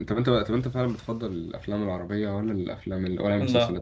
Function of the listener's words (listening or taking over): taking over